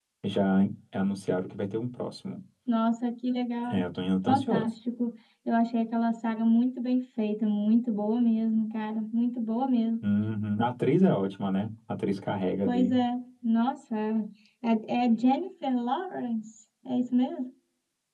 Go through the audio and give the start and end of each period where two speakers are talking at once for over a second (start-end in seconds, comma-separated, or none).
none